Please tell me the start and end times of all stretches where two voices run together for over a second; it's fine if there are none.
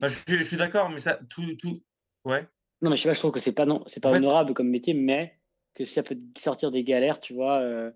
none

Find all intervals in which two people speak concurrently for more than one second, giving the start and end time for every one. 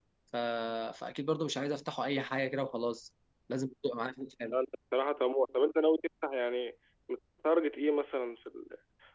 none

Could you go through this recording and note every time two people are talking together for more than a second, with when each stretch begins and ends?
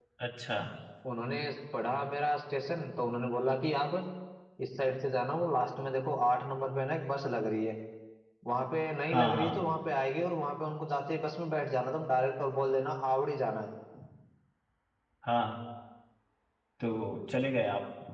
none

